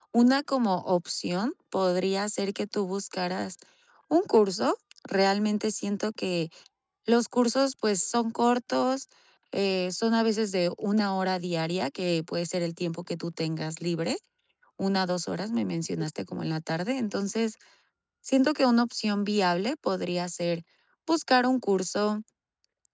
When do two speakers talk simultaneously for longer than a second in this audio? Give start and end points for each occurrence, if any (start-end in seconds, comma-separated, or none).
none